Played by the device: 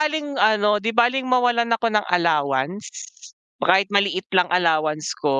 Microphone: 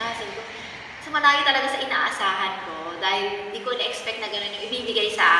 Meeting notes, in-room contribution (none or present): present